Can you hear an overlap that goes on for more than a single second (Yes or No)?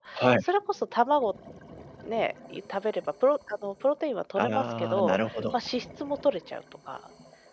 Yes